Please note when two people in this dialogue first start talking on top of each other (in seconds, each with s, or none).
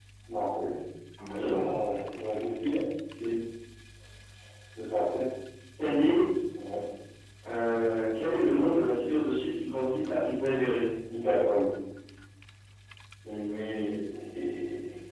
none